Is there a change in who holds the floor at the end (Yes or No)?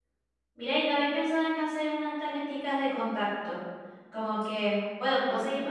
No